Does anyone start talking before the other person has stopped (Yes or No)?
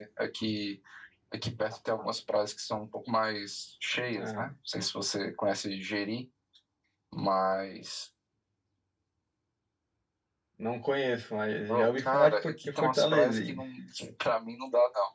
Yes